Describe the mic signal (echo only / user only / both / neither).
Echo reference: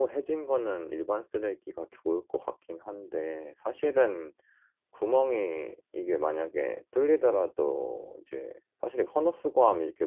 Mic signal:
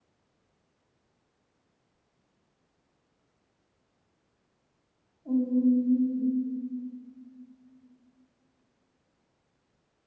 user only